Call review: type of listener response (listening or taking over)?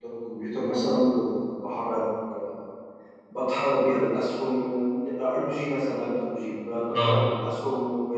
listening